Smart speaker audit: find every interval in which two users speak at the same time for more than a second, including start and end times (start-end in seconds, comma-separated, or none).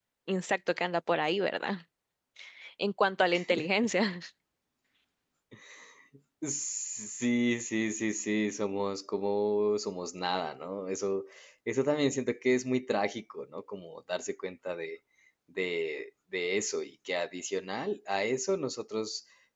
none